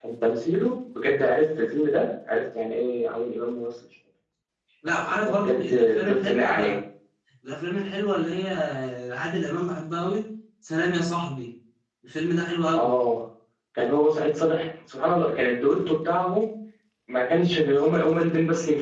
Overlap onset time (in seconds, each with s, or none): 5.2 s